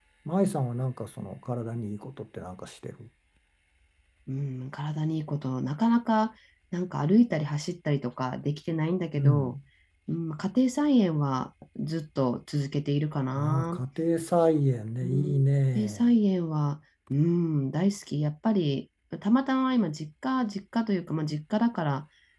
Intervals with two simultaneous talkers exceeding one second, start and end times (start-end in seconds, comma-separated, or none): none